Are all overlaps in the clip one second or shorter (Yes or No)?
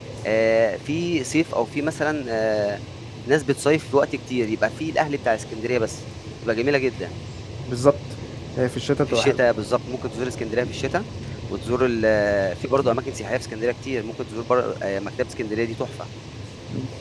Yes